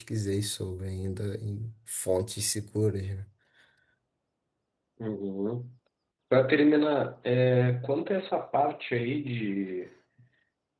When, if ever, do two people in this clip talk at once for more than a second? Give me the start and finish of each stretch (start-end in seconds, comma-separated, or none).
none